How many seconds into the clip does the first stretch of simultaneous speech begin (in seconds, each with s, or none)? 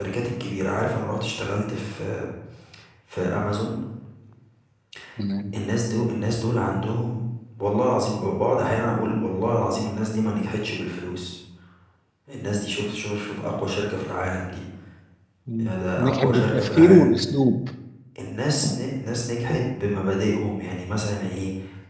15.6 s